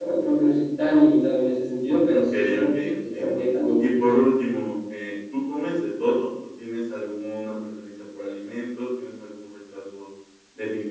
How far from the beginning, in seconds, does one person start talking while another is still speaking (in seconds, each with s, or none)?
2.0 s